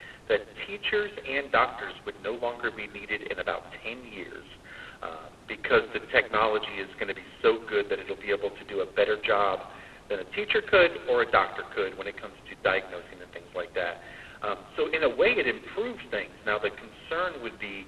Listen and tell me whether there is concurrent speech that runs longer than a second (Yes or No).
No